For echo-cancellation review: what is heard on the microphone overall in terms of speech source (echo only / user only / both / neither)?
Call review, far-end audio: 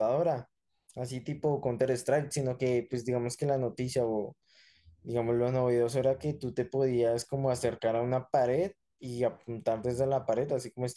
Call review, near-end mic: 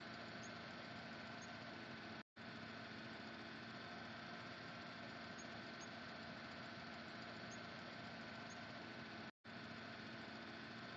neither